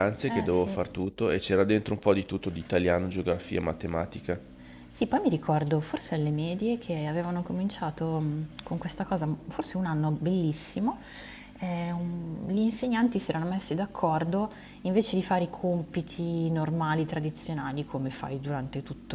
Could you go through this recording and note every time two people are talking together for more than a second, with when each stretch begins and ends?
none

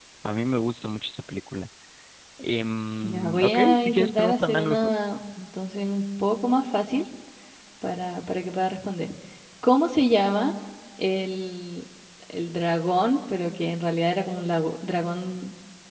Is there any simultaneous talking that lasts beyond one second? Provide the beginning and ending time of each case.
3.0-4.9

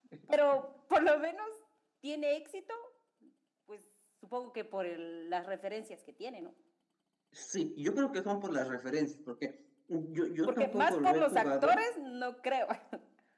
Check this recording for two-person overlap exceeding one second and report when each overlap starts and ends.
10.5-11.8

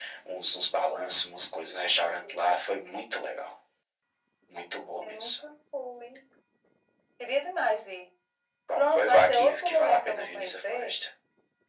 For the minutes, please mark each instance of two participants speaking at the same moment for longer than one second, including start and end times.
8.8-10.9

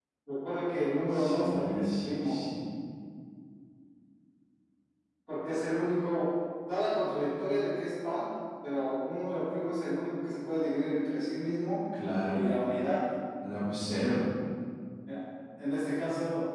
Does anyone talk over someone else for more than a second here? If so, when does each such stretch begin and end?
1.1-2.4

